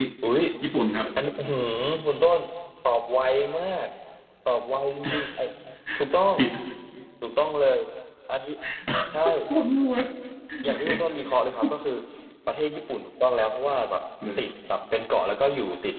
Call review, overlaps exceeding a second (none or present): none